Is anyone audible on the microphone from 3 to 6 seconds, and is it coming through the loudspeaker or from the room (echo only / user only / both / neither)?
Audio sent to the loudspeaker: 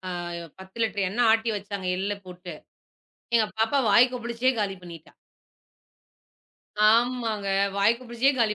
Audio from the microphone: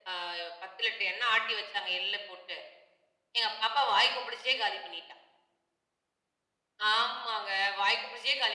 echo only